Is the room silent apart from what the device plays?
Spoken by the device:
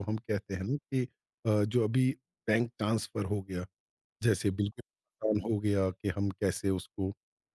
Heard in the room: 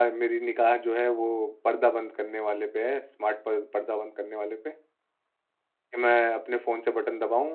No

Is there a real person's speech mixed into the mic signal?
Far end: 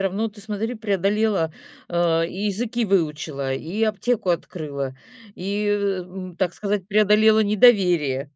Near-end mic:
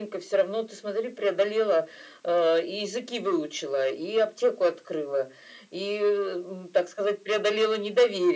No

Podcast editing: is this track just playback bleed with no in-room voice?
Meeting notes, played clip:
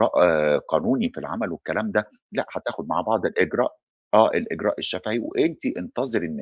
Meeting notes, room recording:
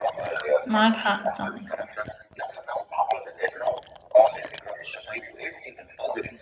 No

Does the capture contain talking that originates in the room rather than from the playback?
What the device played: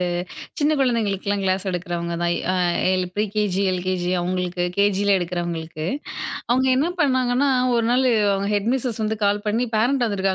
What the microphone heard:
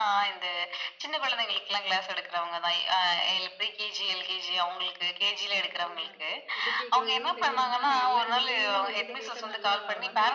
Yes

